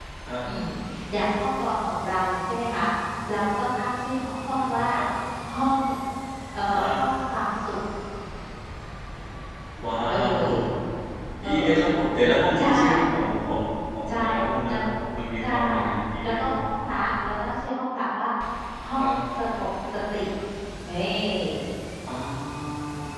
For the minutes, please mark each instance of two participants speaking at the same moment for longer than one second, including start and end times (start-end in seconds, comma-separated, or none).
none